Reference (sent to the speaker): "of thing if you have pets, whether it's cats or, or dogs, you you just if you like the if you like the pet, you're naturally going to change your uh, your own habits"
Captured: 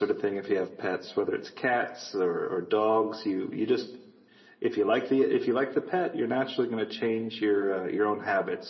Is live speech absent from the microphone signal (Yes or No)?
Yes